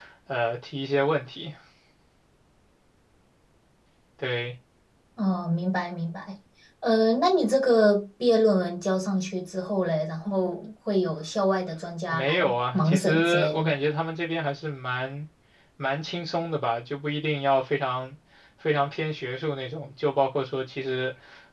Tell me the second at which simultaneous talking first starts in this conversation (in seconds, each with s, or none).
12.1 s